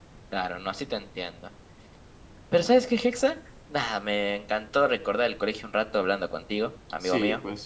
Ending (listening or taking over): taking over